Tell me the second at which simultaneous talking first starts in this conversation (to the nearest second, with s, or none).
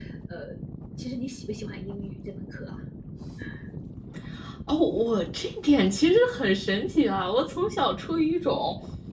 none